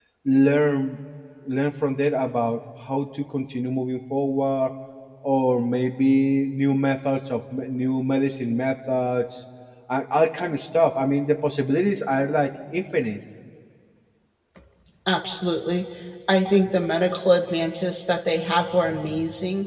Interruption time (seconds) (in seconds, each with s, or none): none